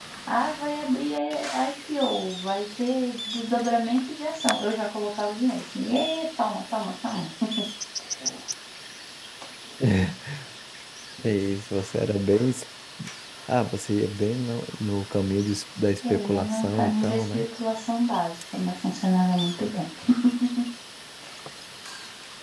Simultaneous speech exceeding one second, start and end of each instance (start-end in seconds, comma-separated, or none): 16.1-17.4